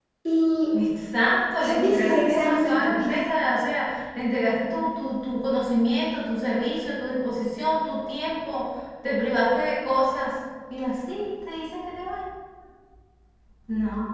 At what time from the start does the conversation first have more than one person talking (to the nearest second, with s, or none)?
2 s